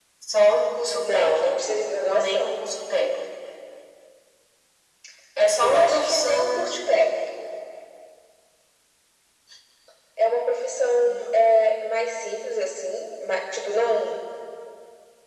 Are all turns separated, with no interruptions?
No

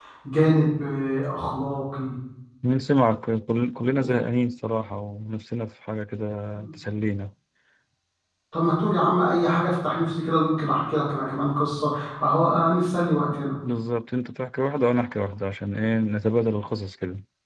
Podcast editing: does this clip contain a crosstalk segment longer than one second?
No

